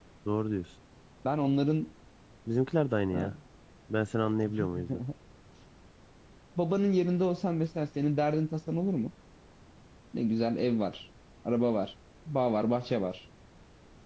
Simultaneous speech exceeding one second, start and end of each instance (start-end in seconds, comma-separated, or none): none